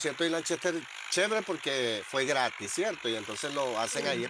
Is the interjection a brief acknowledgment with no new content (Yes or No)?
Yes